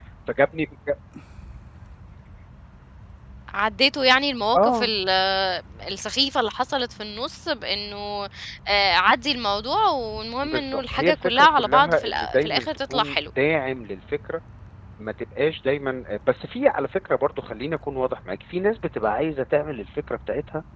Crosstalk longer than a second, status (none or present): present